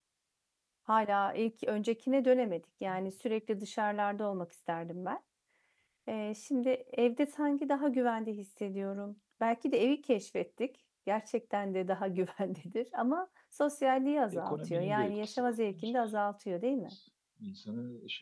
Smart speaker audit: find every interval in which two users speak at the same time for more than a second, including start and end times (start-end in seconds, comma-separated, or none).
14.3-16.0